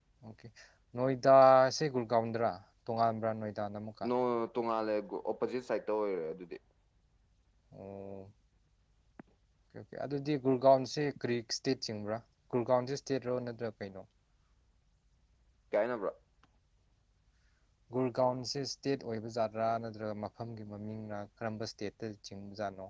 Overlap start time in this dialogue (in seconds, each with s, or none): none